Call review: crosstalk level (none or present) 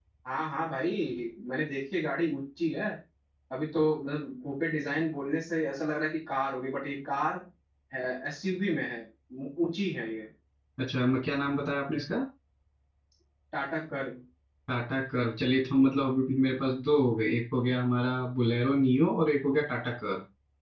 none